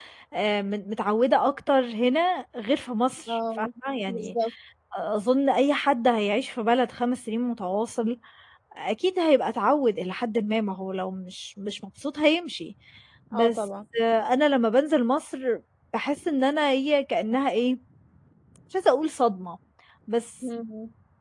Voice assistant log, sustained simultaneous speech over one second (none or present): none